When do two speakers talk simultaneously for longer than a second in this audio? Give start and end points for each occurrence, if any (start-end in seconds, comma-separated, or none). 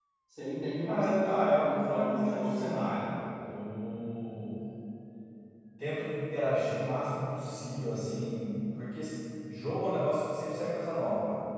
0.8-2.8